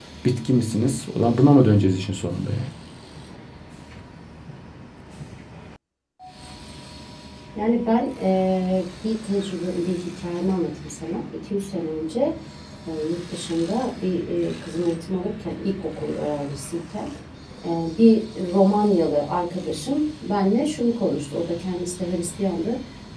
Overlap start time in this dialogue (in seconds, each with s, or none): none